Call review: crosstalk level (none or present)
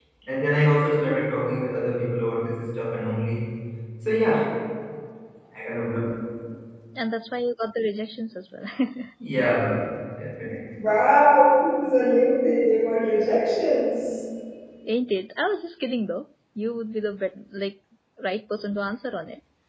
none